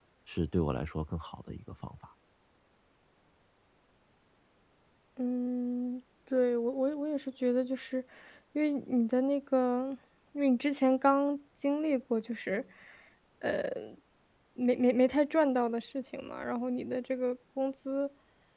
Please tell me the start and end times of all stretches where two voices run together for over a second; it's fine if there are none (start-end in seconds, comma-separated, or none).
none